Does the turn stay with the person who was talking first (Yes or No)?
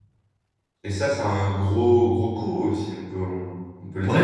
No